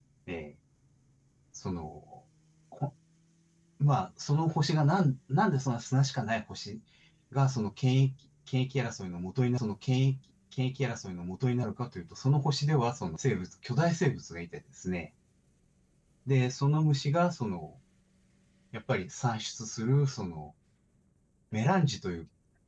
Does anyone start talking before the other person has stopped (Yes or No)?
No